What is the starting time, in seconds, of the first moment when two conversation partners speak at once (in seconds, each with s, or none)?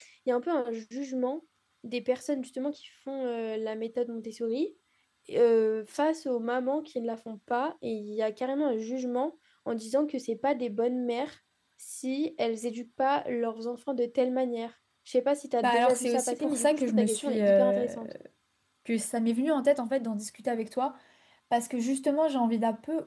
15.6 s